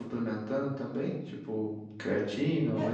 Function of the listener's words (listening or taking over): taking over